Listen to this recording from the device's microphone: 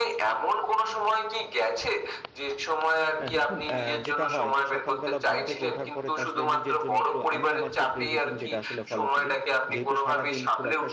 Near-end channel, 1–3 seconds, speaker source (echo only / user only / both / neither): echo only